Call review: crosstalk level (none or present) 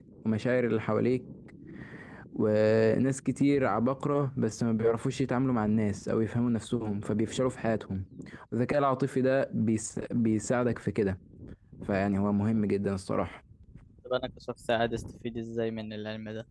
none